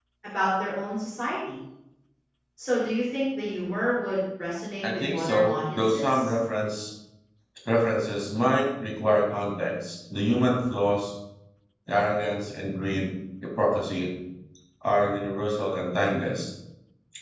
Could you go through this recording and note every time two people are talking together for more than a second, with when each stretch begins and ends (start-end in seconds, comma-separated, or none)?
4.8-6.3